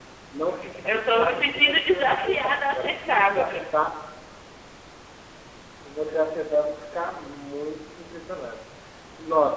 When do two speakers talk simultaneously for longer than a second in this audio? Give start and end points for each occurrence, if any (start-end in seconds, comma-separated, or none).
0.8-3.6